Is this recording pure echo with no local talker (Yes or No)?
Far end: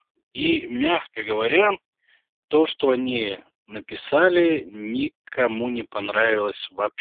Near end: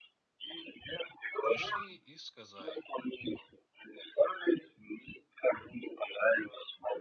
No